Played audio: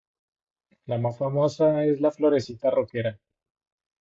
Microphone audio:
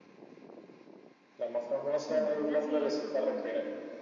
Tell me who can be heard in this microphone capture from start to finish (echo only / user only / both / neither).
both